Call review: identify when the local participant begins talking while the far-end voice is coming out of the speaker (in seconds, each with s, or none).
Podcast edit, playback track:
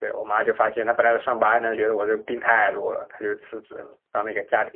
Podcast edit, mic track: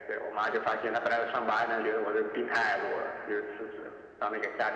none